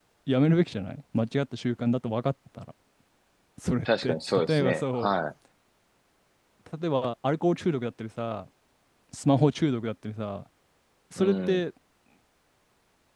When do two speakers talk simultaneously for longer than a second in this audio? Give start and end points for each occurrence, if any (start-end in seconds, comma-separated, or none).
3.9-5.1